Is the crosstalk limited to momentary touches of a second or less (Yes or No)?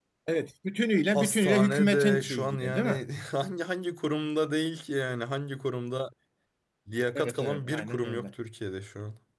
No